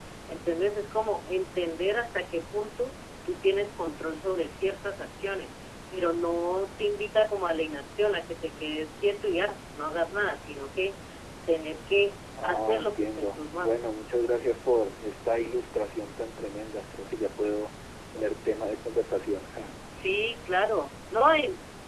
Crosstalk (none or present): present